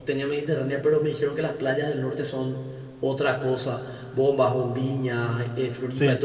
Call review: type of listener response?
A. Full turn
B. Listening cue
B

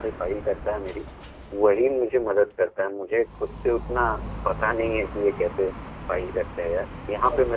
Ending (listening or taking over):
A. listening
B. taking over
B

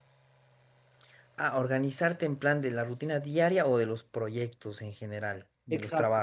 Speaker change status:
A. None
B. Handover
B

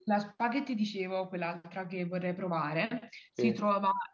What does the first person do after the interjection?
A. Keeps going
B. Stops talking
A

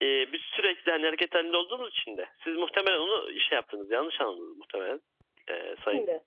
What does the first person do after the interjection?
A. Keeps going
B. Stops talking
A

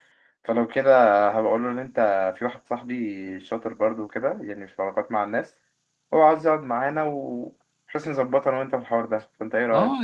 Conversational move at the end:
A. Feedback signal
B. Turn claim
B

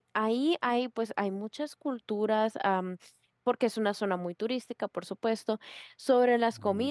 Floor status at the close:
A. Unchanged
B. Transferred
A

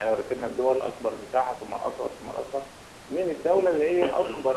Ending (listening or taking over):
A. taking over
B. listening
B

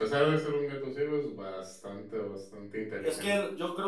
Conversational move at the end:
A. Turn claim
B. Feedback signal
A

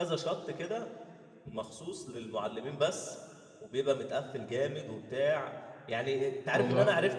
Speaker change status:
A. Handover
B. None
B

